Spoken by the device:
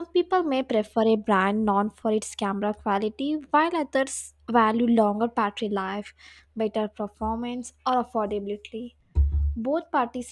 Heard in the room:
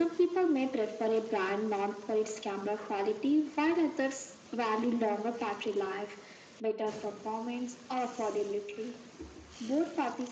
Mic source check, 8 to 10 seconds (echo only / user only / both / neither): echo only